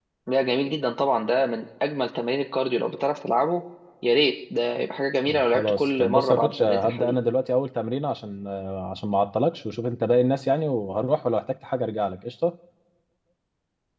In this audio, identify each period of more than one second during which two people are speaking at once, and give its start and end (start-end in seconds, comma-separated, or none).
5.2-7.1